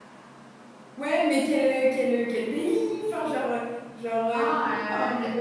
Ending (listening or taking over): taking over